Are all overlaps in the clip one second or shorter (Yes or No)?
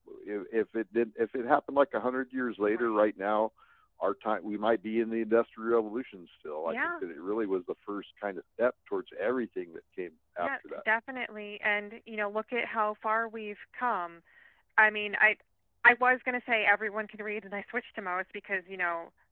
Yes